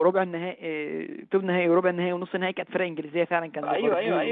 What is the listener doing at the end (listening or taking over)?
taking over